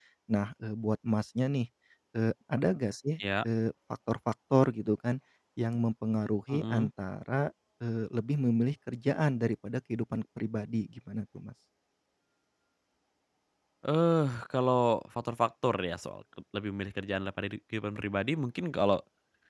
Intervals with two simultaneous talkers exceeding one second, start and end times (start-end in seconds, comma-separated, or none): none